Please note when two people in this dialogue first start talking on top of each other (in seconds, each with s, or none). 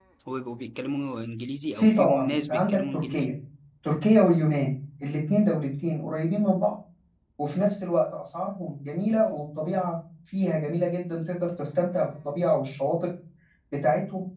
1.8 s